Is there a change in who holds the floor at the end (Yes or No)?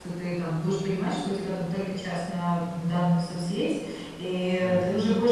No